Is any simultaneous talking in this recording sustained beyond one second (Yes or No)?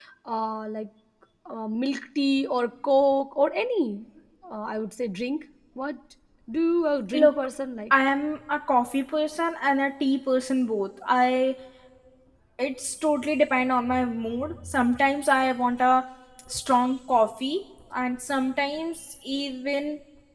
No